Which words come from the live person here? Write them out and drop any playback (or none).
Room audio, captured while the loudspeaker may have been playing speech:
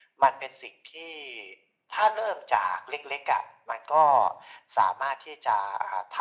none